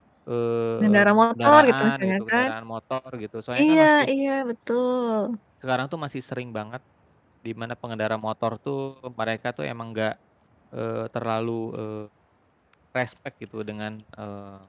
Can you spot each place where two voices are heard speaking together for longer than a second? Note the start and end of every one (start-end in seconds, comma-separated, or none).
0.8-2.5